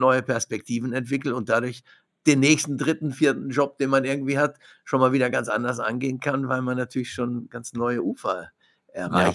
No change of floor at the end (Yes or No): No